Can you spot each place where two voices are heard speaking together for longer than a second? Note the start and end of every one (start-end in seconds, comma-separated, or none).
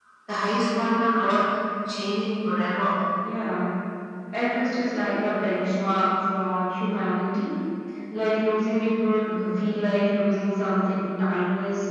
none